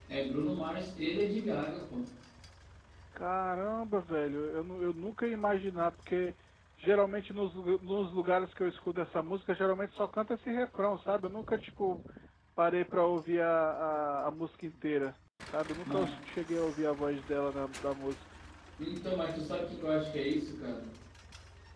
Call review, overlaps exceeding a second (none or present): none